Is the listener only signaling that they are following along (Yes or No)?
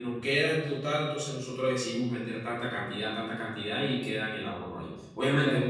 Yes